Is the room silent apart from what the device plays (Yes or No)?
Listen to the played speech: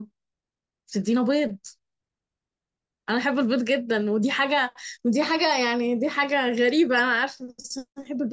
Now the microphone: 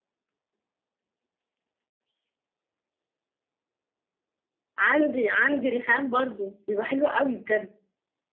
No